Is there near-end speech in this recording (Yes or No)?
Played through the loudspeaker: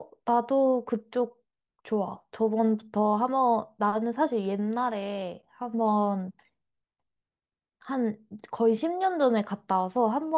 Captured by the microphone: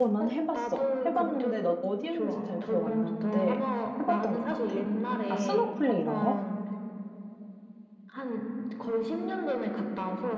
Yes